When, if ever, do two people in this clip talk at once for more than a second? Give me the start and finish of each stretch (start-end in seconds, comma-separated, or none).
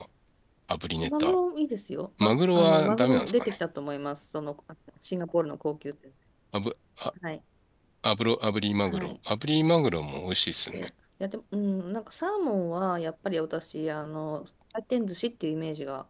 2.2-3.6